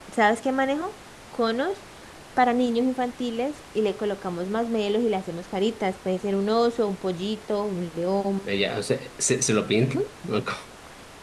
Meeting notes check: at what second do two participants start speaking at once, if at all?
none

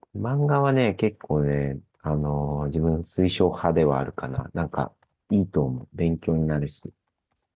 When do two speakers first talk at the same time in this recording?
none

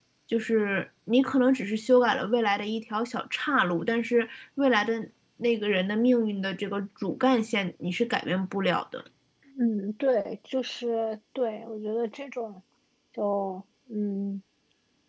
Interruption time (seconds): none

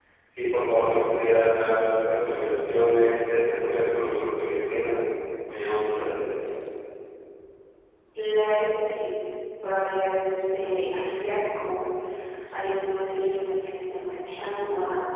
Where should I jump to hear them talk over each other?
none

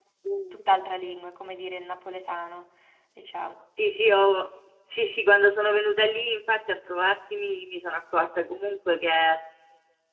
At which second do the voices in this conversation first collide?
none

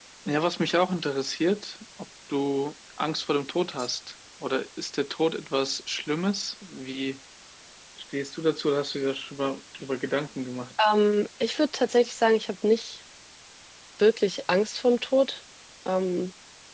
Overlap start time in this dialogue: none

